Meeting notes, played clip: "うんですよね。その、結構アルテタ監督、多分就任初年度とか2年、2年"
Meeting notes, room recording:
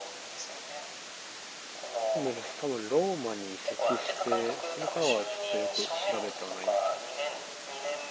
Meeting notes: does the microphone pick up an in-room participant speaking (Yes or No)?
Yes